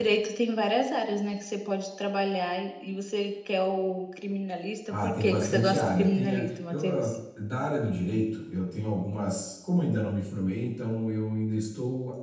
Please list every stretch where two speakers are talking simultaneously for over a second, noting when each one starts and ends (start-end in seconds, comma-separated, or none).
4.9-7.1